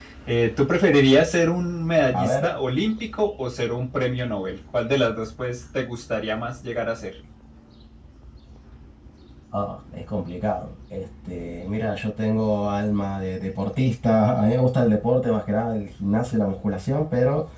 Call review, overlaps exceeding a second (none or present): none